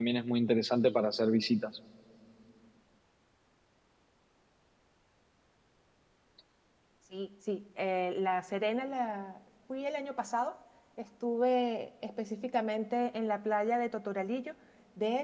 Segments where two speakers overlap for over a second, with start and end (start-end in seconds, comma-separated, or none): none